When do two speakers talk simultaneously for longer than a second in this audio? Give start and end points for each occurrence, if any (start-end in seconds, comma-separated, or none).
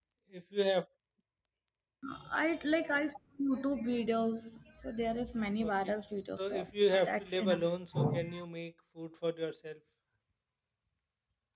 6.4-7.7